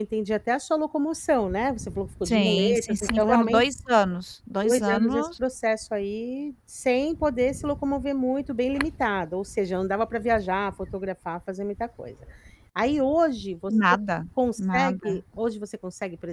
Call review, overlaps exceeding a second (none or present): present